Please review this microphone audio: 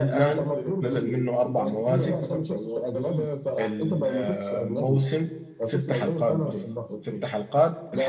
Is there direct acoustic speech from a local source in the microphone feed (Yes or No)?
Yes